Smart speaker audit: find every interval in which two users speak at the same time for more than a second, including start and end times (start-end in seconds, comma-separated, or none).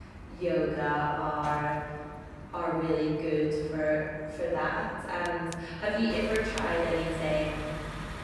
none